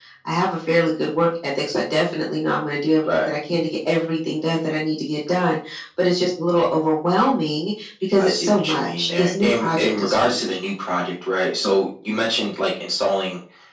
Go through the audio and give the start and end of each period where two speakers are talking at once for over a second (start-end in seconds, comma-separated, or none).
8.2-10.4